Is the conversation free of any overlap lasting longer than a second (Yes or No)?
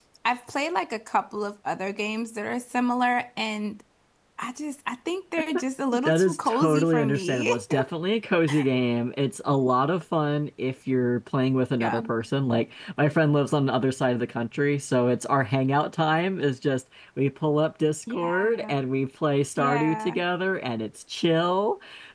No